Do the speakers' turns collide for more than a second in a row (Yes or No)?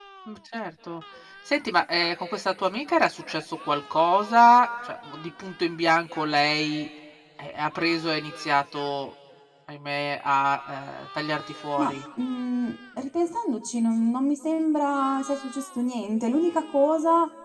No